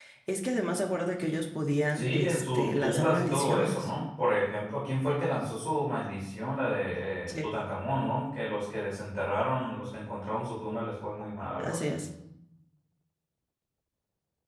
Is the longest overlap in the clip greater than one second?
Yes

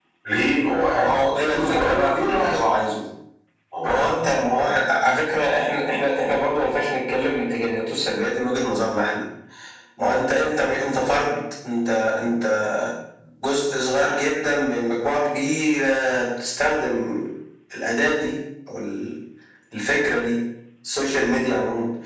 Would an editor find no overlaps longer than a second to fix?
No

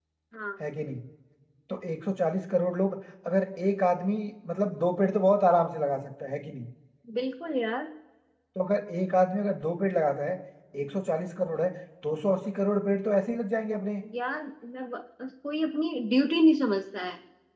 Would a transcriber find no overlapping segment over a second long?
Yes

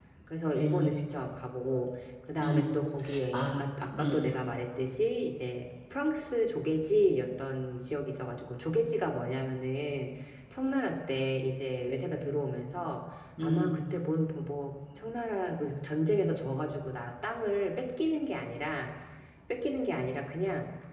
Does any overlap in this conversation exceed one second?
No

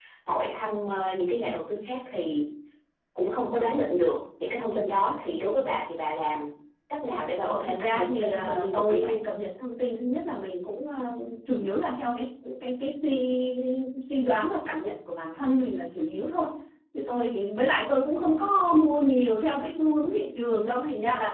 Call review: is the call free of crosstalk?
No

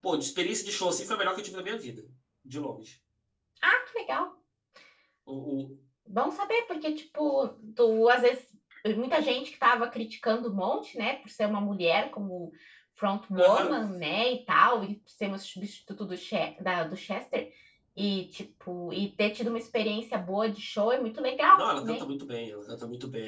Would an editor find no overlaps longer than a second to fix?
Yes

